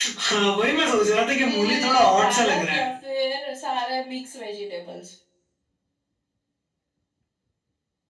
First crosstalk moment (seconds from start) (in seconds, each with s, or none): 1.4 s